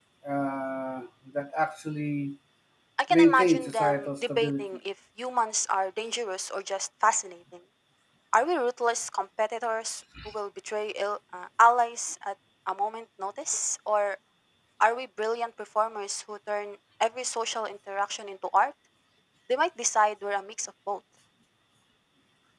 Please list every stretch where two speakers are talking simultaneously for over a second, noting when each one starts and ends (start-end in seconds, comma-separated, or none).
3.1-4.7